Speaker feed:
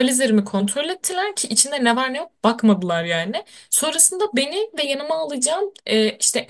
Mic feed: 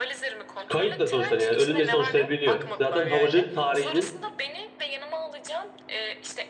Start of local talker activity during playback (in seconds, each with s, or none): 0.7 s